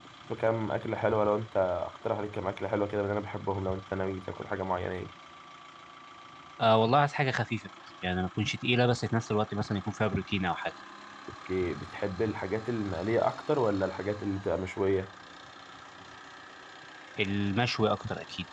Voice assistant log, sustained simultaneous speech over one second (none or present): none